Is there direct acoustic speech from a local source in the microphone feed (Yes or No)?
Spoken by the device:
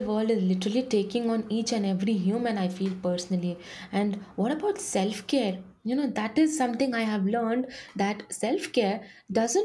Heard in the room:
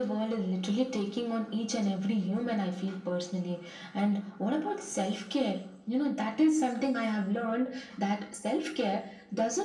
No